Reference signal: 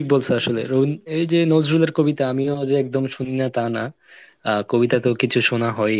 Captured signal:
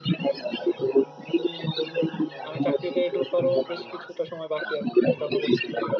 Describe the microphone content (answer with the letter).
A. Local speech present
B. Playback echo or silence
A